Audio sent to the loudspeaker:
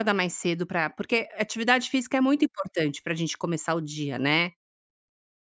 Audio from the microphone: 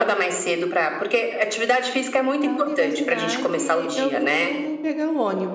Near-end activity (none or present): present